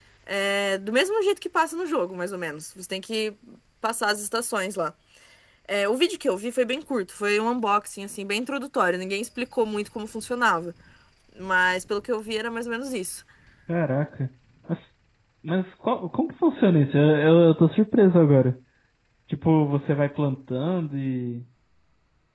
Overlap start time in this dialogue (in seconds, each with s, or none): none